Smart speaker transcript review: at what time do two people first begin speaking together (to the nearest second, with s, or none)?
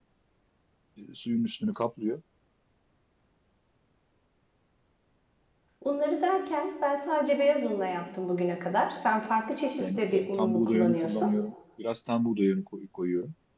10 s